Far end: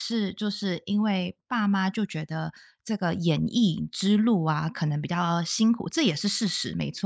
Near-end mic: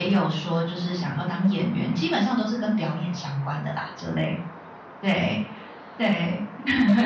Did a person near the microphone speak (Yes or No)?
Yes